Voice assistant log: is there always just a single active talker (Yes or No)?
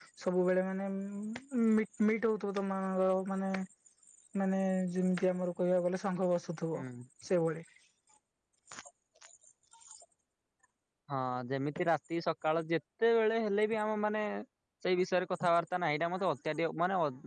Yes